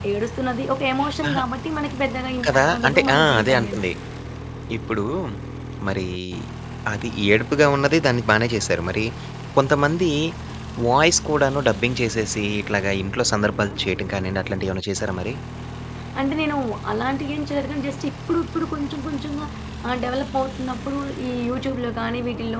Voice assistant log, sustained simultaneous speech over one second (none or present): present